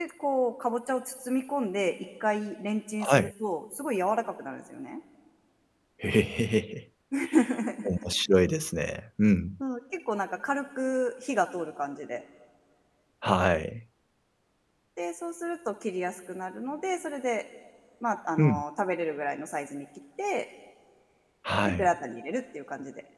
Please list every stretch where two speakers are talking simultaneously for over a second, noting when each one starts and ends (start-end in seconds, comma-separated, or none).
none